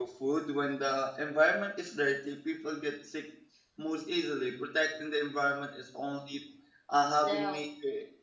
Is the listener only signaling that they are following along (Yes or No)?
Yes